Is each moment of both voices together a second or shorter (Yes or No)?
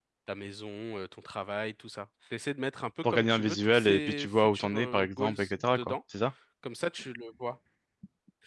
No